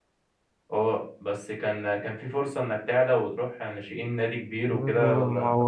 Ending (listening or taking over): taking over